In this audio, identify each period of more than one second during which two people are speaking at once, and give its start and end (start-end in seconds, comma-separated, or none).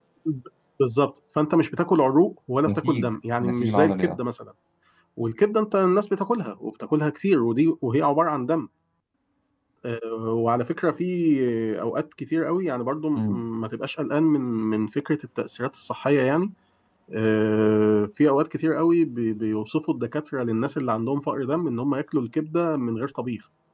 2.7-4.2